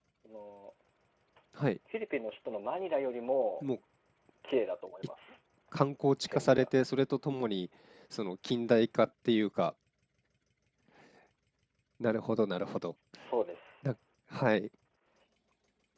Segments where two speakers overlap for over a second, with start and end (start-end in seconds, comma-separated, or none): none